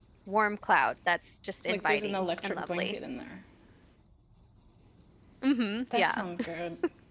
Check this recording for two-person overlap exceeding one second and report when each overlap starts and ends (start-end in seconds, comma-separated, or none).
1.7-2.9